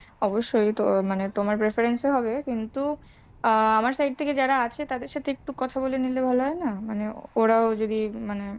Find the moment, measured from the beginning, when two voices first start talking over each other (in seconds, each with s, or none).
none